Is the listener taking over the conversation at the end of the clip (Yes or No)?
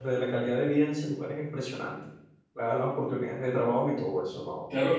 Yes